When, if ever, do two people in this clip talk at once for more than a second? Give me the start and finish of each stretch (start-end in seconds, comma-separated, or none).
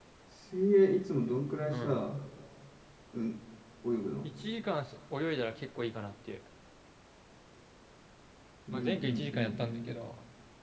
8.7-10.0